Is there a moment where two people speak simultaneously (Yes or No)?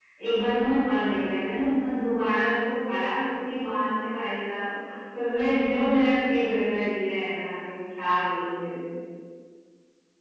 No